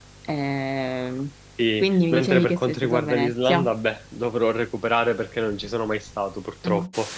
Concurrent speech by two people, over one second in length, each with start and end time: 1.8-3.7

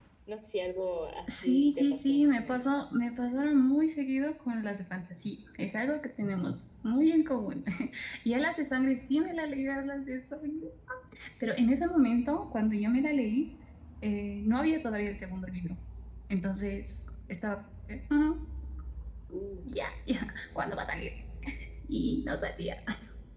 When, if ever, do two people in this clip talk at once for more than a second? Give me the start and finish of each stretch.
1.3-2.7

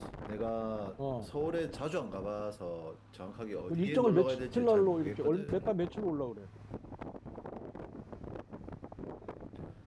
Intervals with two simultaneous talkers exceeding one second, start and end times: 3.7-5.8

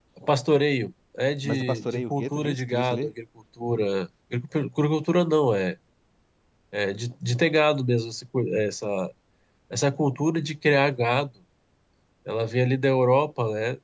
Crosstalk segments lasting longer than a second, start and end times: 1.4-3.1

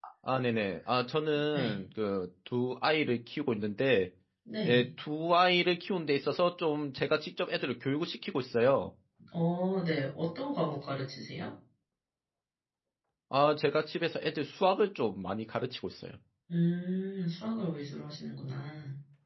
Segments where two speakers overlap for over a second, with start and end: none

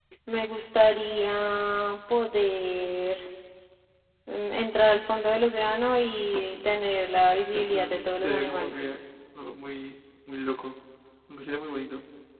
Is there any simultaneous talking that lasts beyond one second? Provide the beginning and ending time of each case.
7.5-8.9

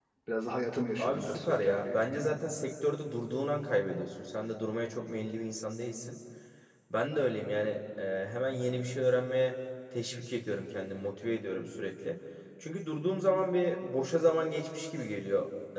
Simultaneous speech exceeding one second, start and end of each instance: 1.0-2.4

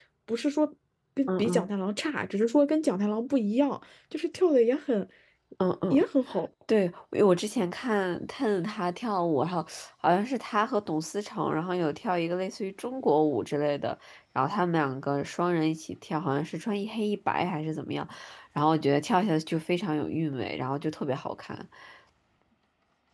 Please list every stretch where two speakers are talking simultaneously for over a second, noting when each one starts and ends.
none

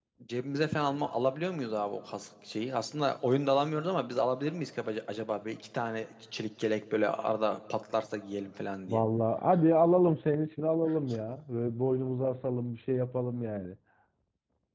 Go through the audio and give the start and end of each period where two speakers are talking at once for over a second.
none

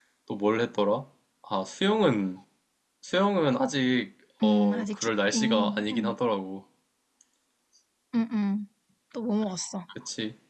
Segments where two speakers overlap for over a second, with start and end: 4.4-6.2

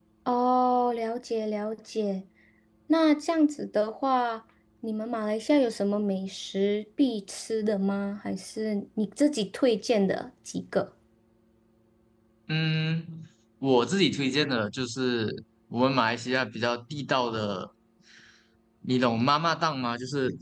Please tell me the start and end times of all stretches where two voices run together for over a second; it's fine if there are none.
none

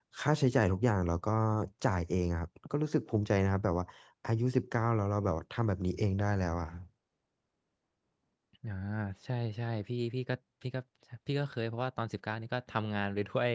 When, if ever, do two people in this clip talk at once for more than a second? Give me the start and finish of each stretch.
none

